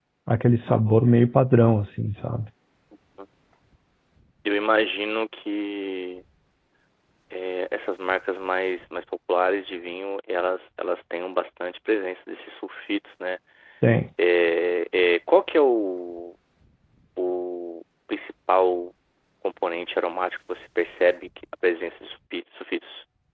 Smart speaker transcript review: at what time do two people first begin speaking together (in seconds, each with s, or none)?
none